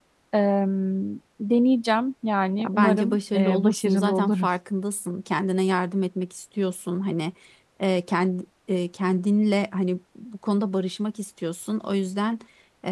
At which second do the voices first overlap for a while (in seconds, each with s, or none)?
2.6 s